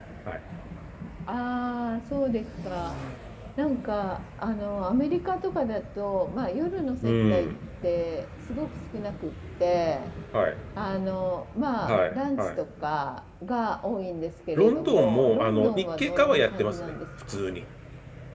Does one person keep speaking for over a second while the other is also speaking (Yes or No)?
Yes